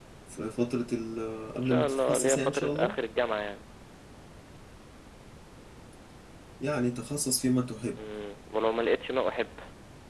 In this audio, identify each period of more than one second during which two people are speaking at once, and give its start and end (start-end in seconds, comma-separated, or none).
1.6-3.0